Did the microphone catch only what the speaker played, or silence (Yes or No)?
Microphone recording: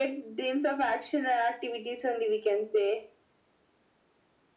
Yes